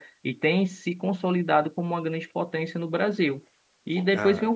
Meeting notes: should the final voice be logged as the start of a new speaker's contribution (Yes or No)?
No